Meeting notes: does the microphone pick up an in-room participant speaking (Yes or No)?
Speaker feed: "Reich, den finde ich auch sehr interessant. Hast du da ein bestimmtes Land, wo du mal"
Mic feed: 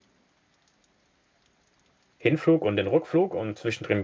Yes